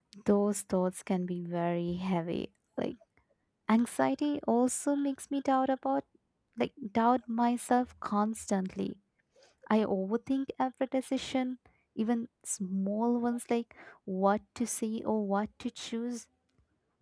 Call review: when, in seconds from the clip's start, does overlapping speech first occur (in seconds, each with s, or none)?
none